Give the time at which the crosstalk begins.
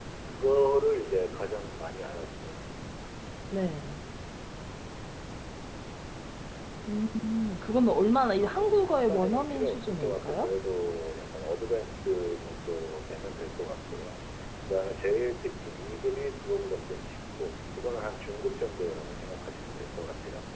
8.3 s

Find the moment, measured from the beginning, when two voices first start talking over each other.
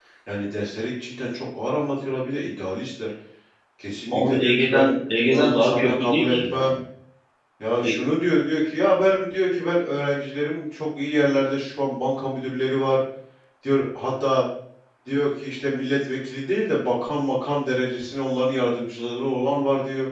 4.1 s

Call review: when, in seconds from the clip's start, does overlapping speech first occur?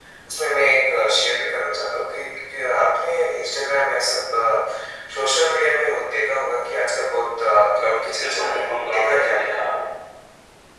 8.2 s

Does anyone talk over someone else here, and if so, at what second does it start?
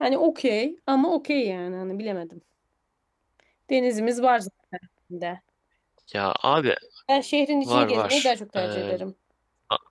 7.7 s

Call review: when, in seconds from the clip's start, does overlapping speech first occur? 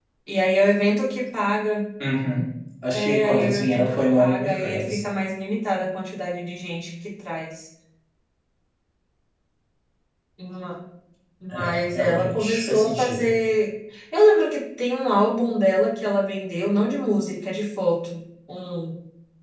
2.9 s

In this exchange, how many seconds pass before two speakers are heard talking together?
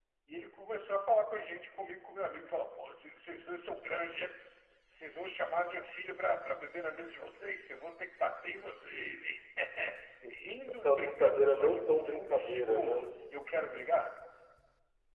10.8 s

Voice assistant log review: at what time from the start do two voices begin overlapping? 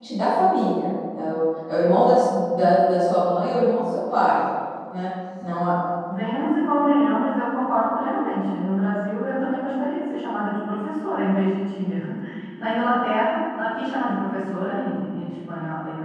none

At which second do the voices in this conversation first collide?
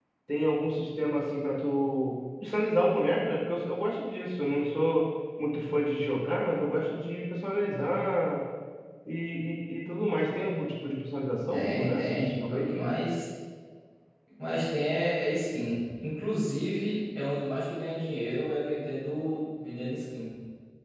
11.5 s

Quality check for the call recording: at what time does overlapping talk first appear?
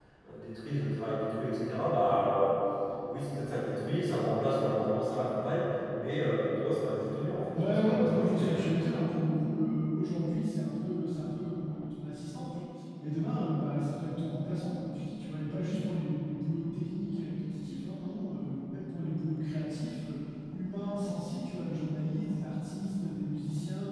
7.5 s

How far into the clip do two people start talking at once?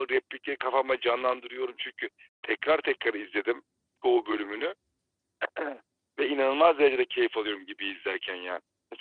none

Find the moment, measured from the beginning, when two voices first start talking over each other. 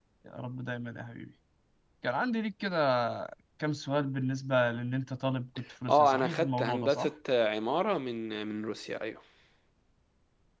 5.9 s

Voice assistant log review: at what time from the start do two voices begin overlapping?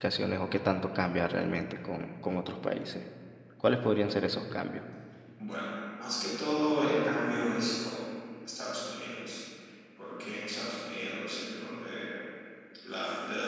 none

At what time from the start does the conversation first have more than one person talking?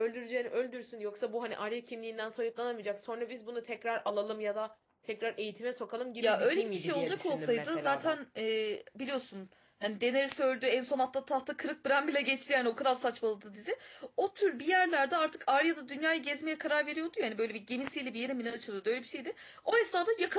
6.2 s

